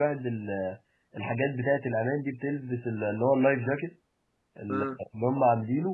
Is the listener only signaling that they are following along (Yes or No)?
Yes